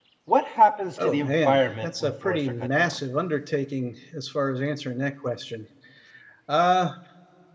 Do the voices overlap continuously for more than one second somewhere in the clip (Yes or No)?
Yes